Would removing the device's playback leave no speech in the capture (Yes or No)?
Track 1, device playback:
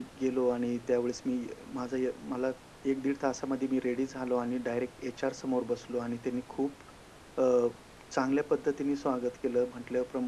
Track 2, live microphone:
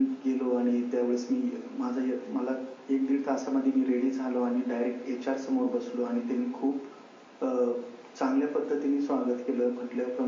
Yes